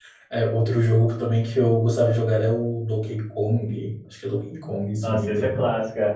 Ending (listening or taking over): taking over